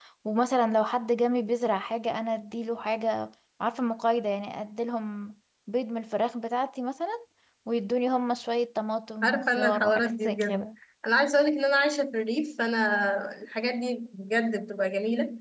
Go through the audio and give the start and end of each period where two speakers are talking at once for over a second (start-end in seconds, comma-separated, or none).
9.2-10.7